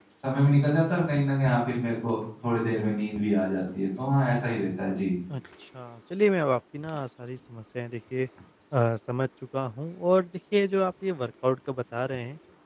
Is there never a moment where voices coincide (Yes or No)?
Yes